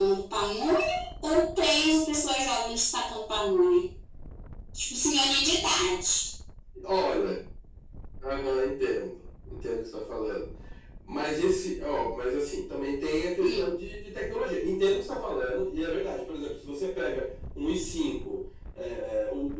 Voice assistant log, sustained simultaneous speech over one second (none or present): none